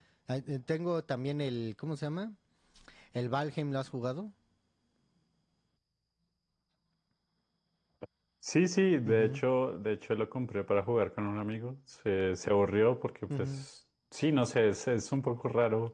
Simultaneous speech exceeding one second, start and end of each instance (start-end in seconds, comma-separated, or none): none